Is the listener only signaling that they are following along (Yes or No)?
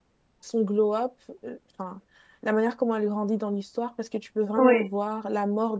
Yes